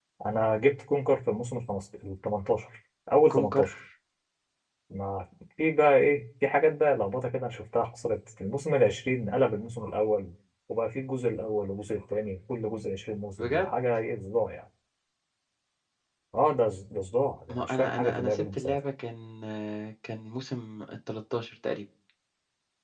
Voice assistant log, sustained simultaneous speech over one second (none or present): present